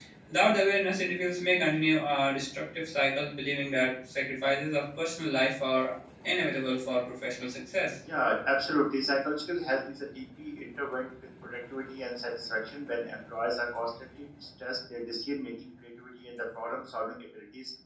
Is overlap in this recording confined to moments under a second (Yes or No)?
Yes